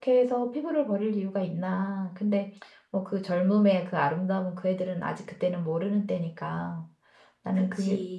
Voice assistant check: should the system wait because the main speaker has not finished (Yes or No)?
Yes